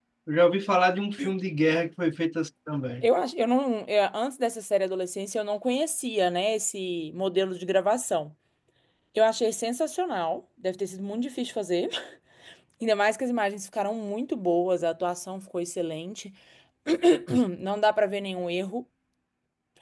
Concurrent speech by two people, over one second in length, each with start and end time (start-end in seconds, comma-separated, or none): none